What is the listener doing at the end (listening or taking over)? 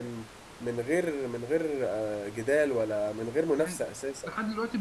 taking over